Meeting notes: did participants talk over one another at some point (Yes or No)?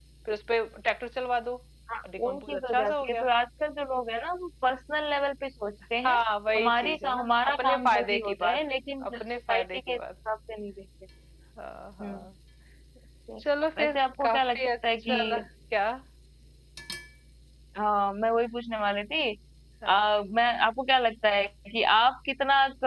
Yes